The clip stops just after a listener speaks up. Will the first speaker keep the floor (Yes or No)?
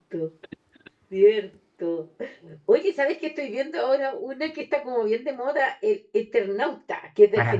No